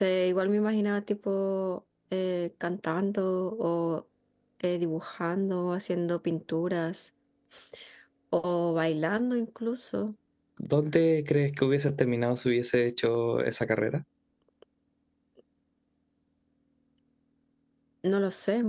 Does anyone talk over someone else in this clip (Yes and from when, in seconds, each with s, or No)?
No